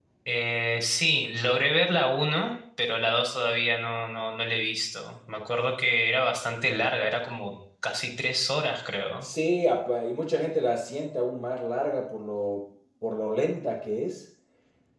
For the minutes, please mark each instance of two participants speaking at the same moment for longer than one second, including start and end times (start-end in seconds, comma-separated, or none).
none